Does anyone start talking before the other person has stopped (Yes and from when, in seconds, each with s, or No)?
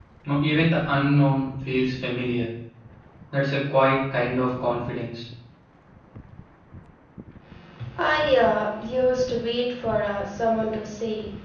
No